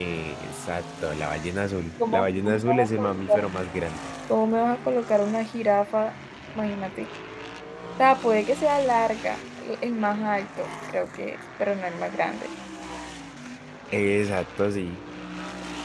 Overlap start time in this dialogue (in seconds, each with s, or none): 2.0 s